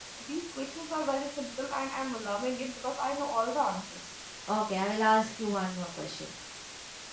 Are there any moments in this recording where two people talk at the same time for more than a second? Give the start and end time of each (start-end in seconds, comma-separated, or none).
none